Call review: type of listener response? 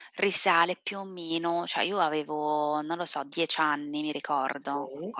listening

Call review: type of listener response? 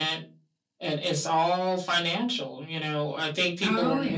listening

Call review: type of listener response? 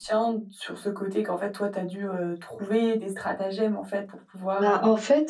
taking over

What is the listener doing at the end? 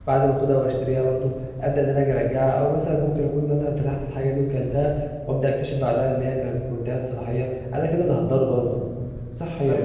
taking over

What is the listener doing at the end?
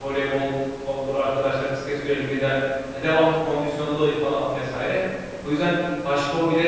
listening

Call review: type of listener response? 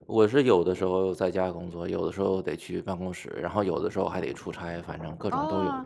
taking over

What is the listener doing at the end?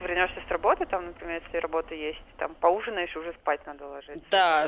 taking over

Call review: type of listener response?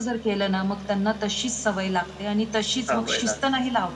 listening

